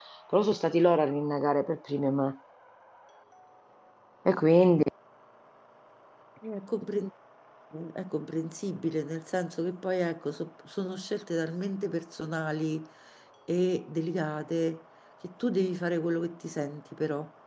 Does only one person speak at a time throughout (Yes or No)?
Yes